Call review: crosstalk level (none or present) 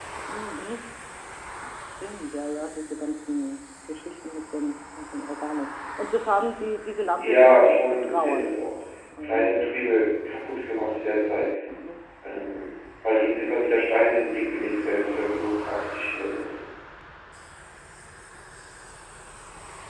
present